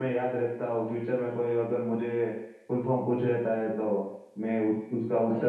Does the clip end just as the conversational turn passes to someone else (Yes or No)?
Yes